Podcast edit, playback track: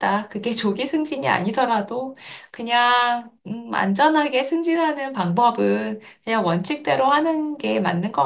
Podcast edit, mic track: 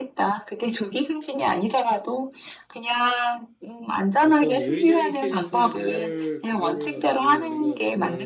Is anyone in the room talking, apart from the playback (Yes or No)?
Yes